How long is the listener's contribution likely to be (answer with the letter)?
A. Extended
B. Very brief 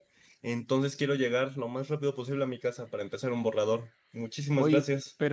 A